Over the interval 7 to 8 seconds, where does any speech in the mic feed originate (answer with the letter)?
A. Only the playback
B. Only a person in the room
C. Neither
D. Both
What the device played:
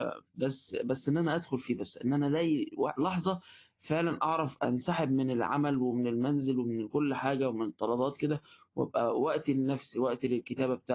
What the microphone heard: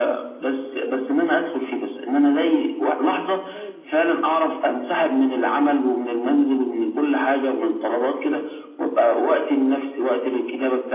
A